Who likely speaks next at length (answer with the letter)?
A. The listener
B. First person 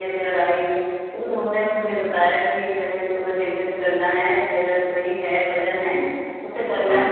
B